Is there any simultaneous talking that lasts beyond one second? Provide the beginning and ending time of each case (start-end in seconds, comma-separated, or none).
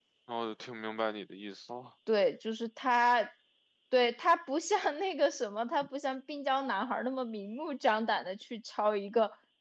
none